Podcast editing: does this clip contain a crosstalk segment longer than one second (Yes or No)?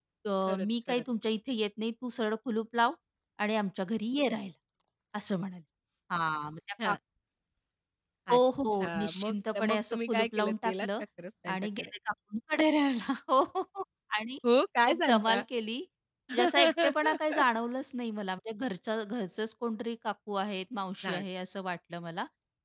Yes